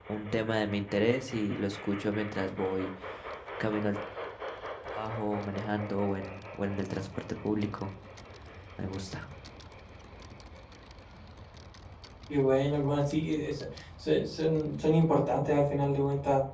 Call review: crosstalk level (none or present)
none